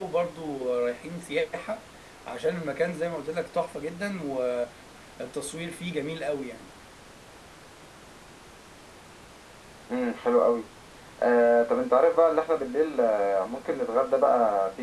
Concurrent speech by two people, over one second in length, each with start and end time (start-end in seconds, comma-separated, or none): none